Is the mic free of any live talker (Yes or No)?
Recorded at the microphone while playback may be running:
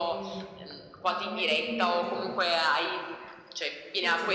No